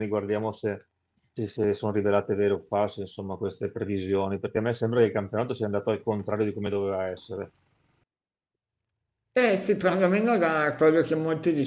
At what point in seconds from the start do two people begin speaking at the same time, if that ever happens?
none

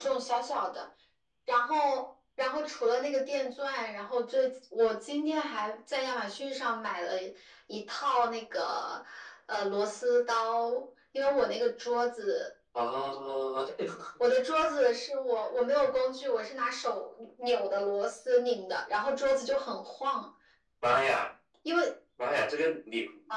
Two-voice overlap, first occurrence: none

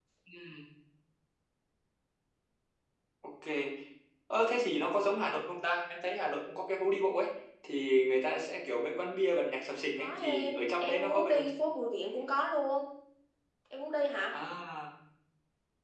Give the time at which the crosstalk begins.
10 s

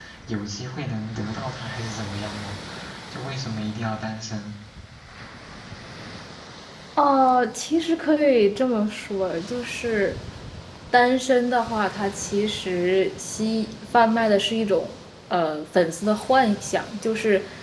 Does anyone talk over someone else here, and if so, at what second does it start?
none

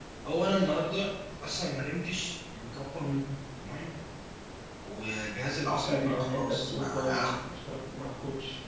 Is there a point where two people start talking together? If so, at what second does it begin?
6 s

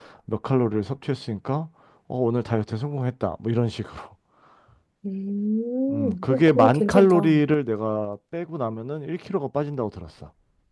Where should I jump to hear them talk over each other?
6 s

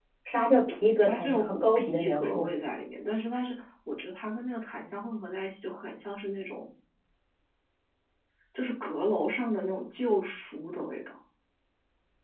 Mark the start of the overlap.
1 s

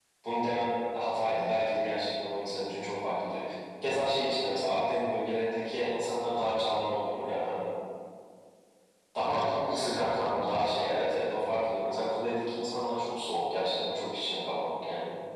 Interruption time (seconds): 9 s

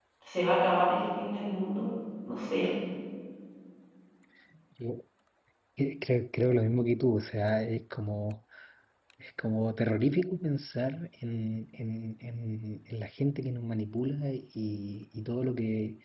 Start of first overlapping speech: none

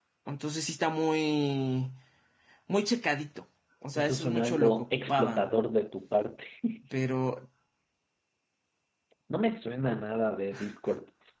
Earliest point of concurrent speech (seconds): 4 s

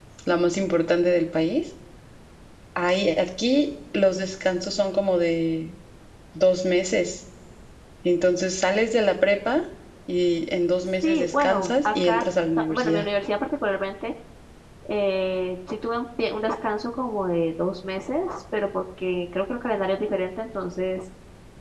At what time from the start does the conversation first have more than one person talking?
11 s

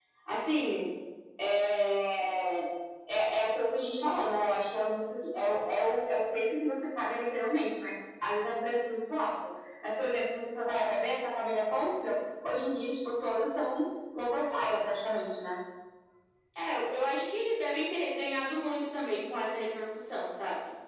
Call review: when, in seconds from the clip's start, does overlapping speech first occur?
none

